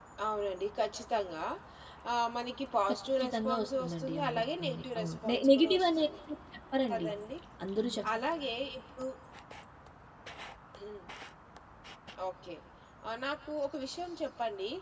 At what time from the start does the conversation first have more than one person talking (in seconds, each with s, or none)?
3.2 s